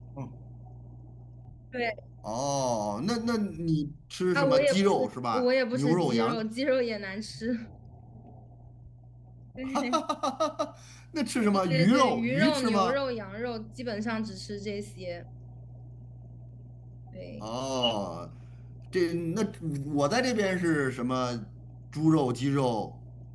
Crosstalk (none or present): present